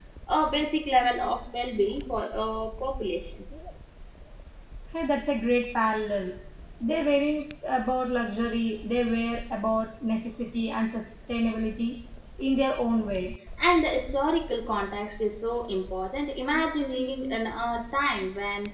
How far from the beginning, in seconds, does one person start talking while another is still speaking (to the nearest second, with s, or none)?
none